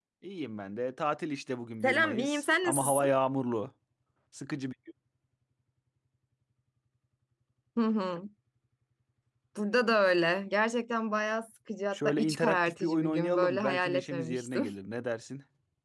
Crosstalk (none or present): present